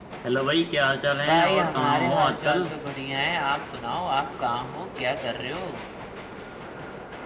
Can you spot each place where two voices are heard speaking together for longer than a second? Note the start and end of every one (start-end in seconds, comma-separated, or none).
1.3-2.7